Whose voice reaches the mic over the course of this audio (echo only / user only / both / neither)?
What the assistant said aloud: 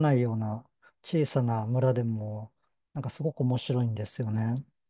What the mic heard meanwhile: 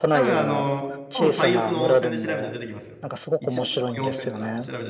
both